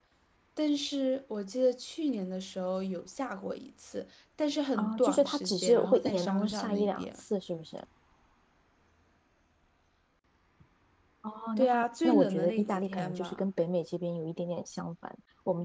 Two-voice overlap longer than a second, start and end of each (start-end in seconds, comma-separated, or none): 4.8-7.1, 11.6-13.4